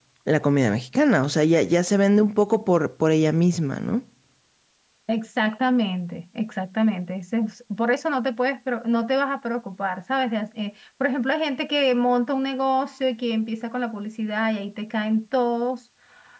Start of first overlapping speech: none

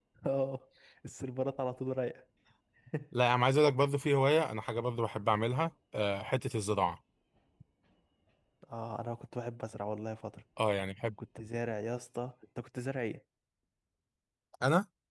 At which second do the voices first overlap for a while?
none

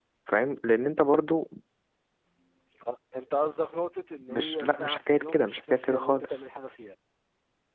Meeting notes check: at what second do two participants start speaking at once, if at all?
4.1 s

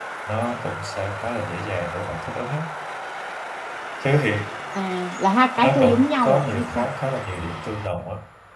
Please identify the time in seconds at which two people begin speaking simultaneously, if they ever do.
5.6 s

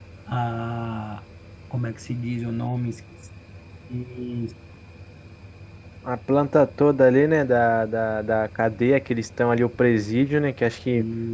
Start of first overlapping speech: none

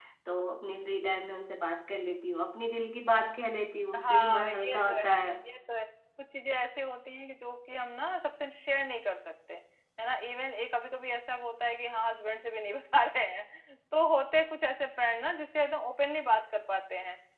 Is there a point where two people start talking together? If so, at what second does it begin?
3.9 s

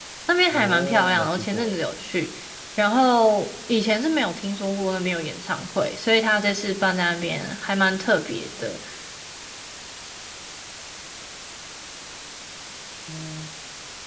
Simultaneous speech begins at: 0.5 s

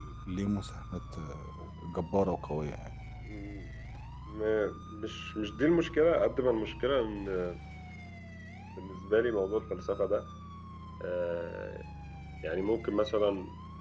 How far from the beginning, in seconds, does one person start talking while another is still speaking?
none

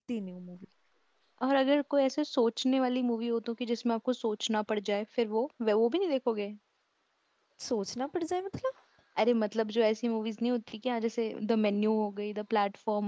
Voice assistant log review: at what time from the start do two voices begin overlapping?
none

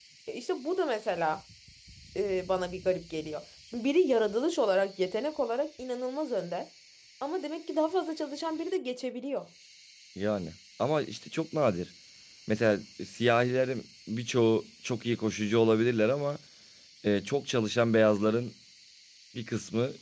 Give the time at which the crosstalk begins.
none

